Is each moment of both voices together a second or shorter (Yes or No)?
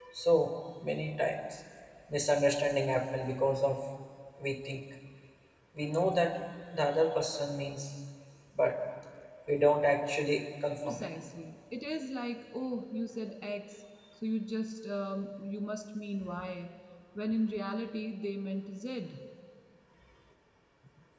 Yes